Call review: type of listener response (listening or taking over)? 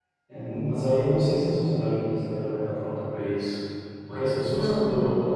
listening